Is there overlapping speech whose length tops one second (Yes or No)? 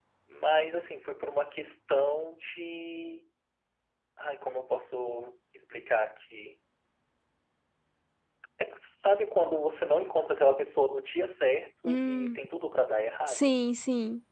No